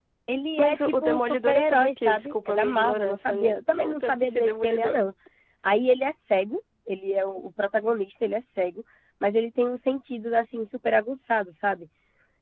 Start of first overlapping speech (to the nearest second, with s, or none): 1 s